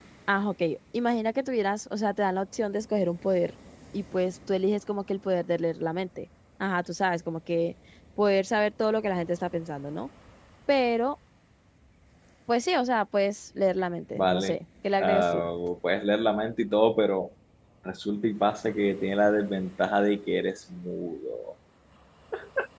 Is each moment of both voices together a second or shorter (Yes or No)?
Yes